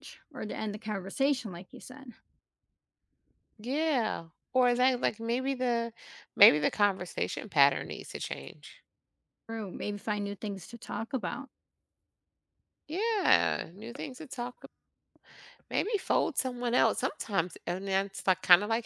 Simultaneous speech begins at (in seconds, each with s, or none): none